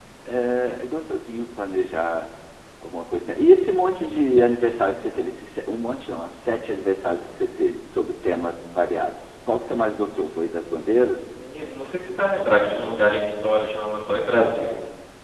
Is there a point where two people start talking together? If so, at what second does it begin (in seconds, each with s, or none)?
none